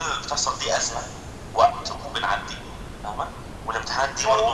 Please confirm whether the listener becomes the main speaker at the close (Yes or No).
No